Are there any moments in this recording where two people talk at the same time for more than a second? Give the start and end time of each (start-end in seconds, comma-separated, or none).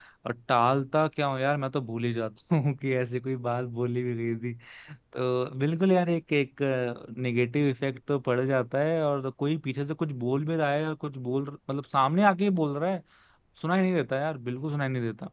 none